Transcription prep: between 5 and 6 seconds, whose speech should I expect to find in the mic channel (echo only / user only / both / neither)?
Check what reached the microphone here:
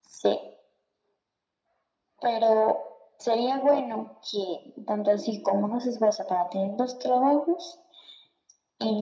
echo only